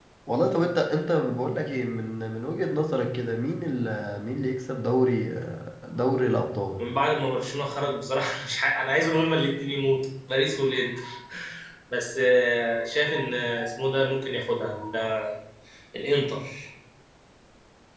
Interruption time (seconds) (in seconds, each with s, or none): none